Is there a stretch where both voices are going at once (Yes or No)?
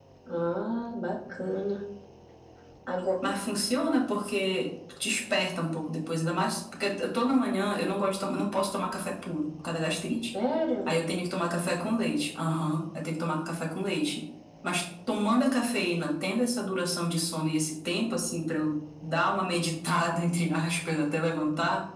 No